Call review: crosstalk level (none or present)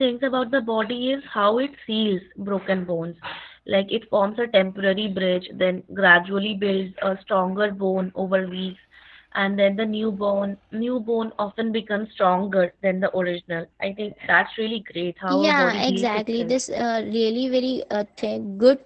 present